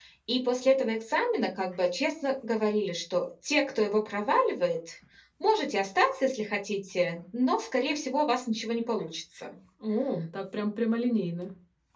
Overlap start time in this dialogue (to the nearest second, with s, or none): none